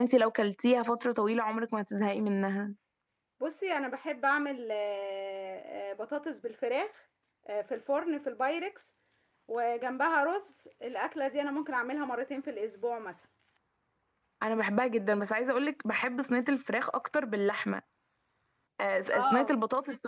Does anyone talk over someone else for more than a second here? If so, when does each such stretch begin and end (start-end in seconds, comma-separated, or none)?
none